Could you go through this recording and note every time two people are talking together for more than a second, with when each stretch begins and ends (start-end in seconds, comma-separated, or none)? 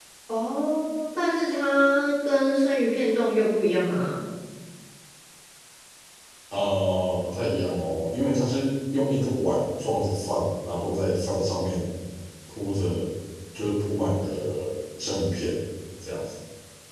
none